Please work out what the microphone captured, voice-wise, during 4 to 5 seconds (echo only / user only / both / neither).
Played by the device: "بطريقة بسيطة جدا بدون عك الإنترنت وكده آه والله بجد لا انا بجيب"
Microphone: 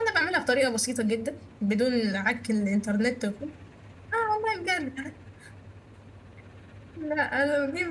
echo only